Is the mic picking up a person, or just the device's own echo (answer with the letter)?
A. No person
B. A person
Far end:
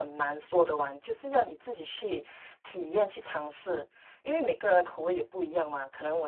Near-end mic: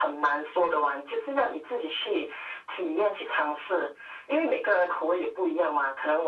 A